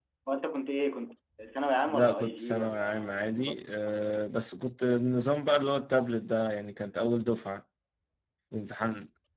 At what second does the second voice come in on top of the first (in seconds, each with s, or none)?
1.9 s